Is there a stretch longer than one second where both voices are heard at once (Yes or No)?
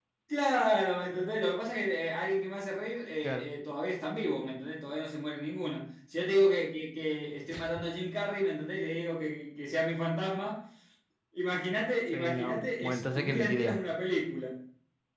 Yes